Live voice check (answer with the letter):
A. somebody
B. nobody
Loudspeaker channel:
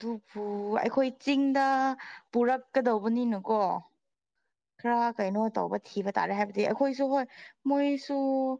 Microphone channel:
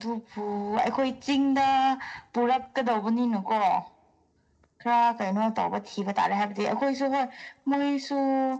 B